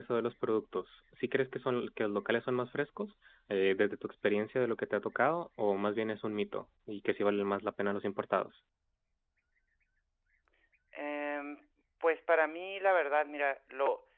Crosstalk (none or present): none